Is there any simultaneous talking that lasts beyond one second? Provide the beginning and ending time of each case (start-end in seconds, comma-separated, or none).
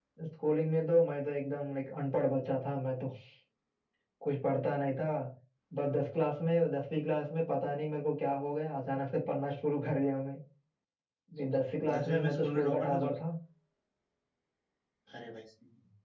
11.9-13.1